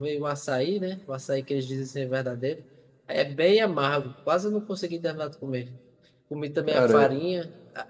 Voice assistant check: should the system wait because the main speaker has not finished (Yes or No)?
Yes